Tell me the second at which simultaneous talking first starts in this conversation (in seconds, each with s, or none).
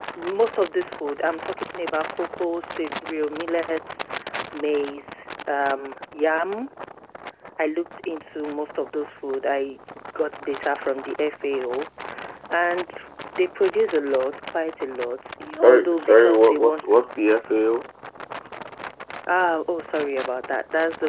15.6 s